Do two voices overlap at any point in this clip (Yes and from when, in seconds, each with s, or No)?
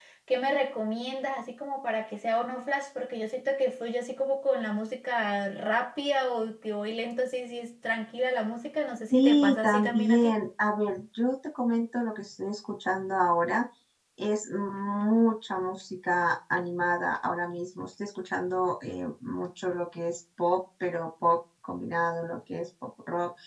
Yes, from 9.1 s